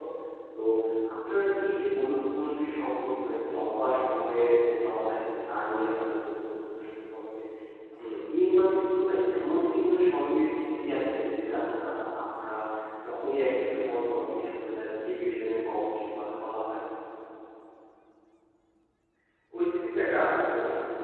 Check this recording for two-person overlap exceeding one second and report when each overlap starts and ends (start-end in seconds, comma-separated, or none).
none